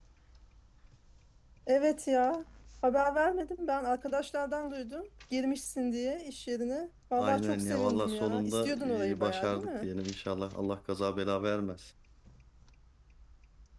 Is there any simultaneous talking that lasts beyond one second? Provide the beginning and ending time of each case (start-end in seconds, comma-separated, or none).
7.2-9.9